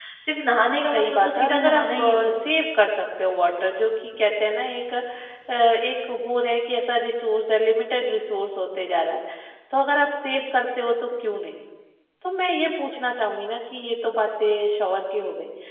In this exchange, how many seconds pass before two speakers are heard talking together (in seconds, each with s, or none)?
0.9 s